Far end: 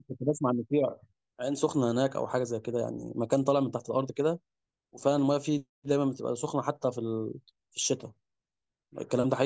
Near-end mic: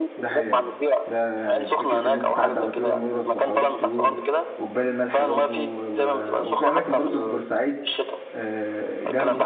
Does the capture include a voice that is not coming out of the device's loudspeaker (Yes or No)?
Yes